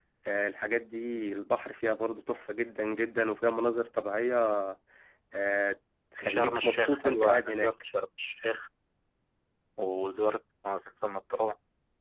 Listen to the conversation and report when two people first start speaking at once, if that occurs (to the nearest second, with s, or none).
6 s